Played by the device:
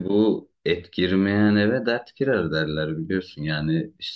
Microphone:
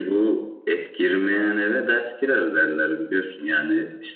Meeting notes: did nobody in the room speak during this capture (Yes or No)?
Yes